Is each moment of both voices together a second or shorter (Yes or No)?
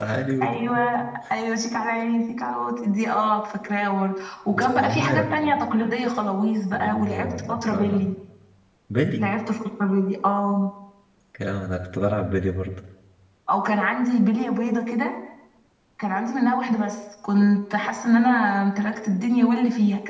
No